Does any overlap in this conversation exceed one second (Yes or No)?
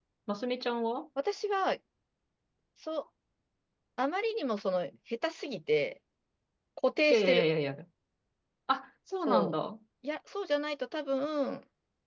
No